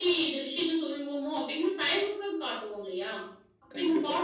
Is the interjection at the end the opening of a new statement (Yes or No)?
No